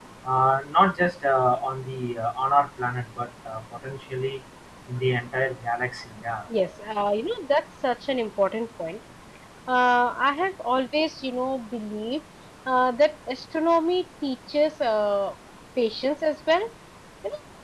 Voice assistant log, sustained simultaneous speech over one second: none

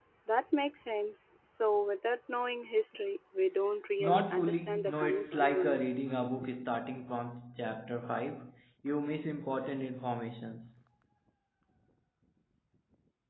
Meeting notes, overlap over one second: present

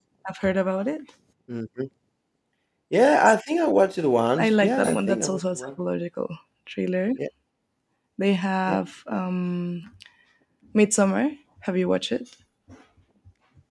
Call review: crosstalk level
present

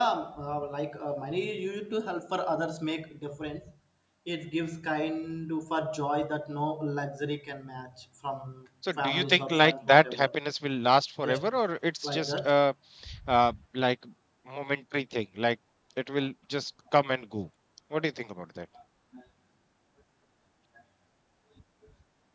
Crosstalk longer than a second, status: present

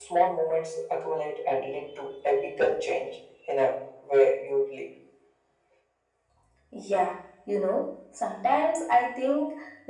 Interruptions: none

